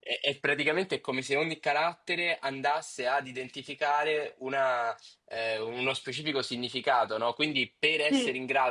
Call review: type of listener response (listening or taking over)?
listening